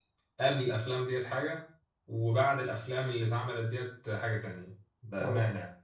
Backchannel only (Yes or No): No